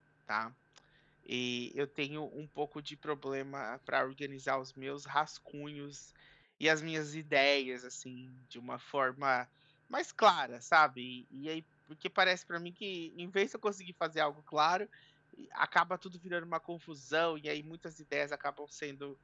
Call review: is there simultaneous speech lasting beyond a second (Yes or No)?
No